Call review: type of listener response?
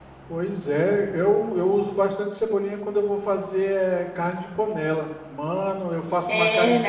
taking over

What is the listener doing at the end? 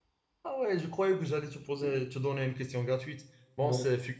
listening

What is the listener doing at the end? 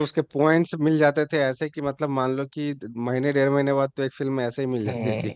taking over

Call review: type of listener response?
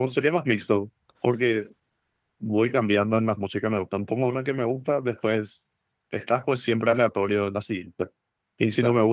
listening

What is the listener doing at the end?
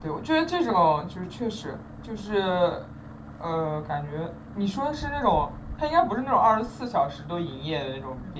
taking over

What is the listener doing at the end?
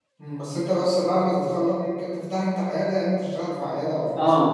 taking over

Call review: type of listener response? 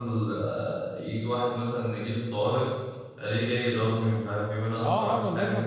taking over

